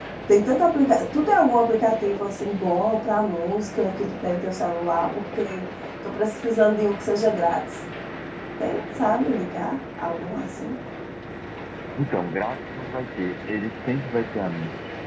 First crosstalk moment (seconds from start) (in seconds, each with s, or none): none